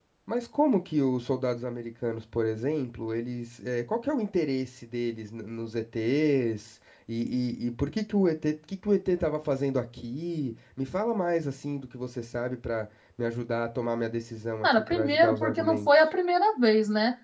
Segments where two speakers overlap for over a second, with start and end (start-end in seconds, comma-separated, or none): 14.6-15.9